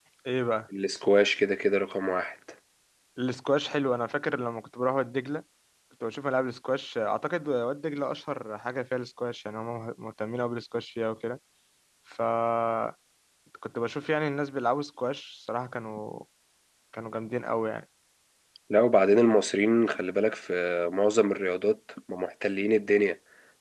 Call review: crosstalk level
none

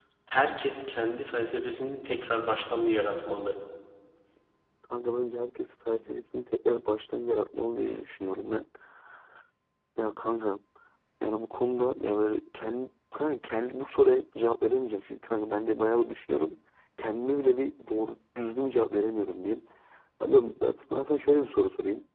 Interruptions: none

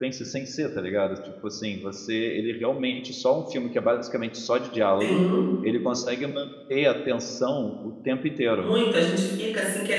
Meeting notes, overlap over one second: none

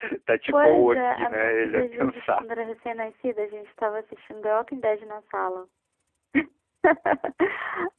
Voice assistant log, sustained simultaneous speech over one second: present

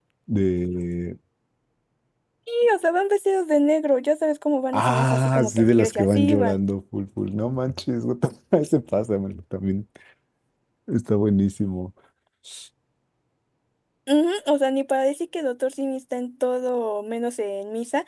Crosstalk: present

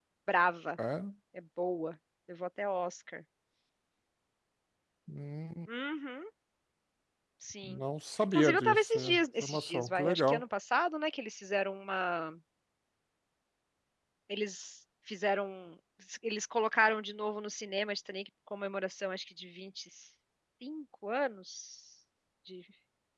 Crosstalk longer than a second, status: present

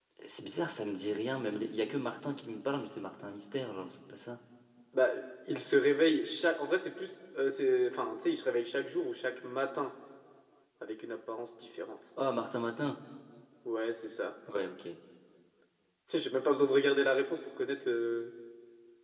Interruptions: none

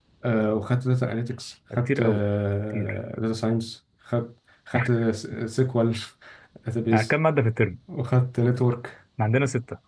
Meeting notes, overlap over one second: none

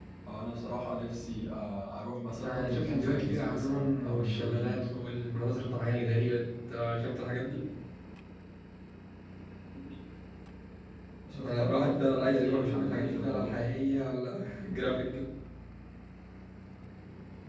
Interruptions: present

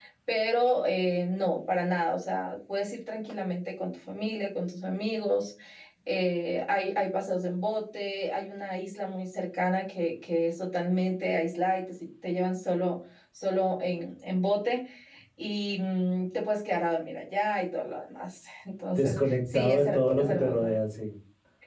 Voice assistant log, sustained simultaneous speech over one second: present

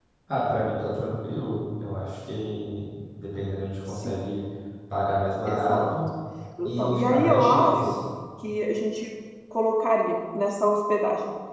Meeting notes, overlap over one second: present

